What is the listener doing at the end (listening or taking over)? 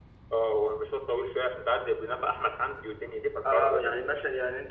taking over